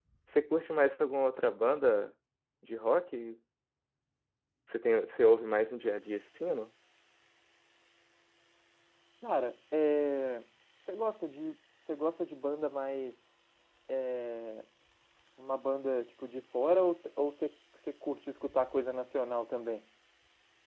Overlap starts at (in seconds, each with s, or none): none